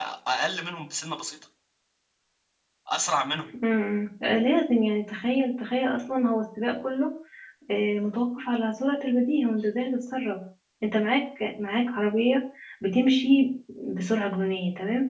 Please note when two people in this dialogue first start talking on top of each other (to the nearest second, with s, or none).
none